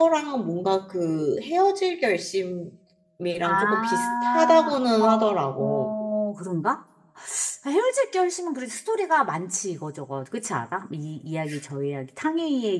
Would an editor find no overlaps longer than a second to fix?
No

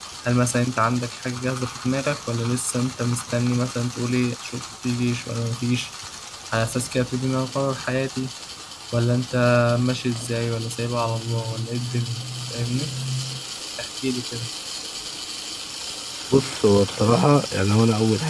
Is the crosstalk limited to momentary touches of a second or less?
Yes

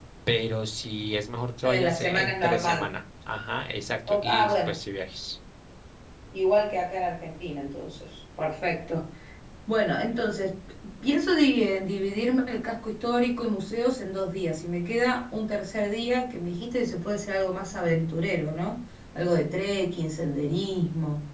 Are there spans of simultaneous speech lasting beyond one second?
Yes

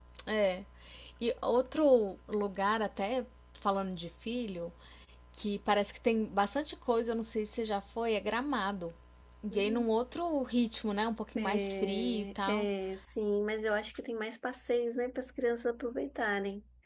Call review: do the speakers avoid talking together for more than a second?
No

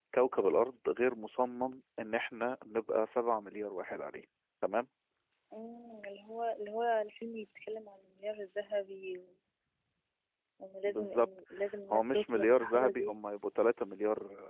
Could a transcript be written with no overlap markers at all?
No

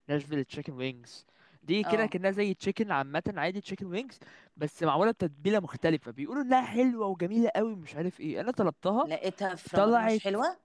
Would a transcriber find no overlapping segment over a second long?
Yes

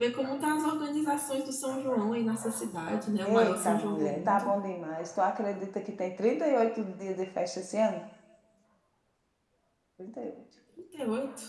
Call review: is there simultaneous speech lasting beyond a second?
Yes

